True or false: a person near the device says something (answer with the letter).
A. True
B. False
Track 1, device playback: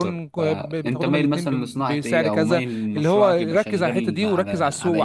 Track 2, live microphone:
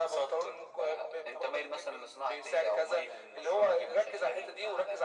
B